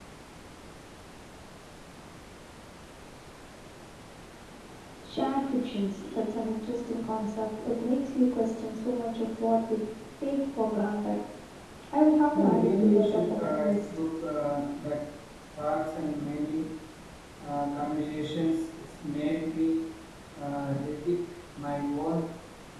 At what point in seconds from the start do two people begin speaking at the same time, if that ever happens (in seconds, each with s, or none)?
12.3 s